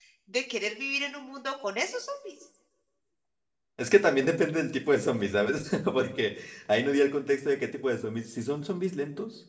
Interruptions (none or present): none